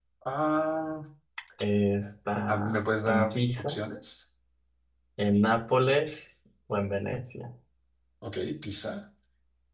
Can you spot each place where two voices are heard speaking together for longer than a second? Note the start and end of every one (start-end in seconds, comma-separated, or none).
2.5-3.8